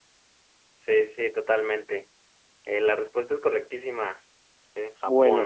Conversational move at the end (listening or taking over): taking over